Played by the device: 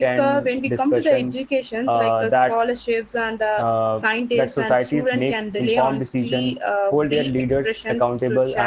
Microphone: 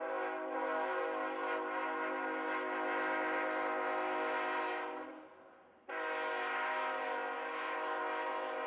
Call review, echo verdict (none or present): none